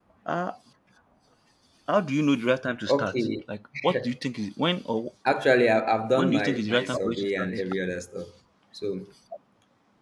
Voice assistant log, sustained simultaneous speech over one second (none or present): present